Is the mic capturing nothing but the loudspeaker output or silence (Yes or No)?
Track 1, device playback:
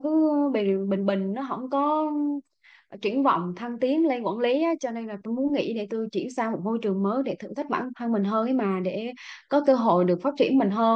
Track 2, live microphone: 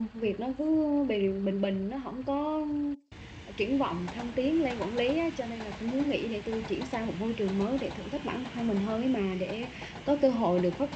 Yes